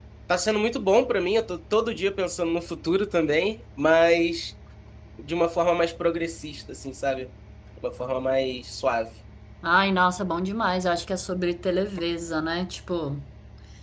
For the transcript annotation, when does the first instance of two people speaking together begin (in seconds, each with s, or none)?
none